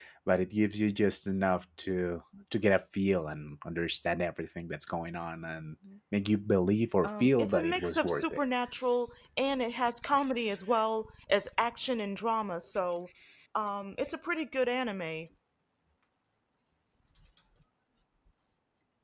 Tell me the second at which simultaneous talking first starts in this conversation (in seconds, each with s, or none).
7.0 s